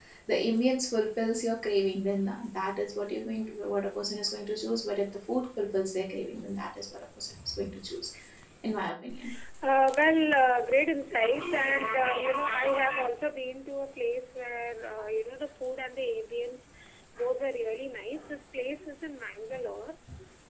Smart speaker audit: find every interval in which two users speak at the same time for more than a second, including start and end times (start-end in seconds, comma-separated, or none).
none